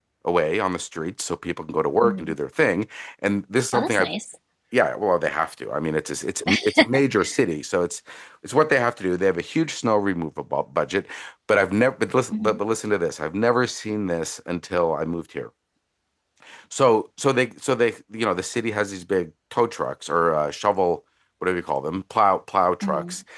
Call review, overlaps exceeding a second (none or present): none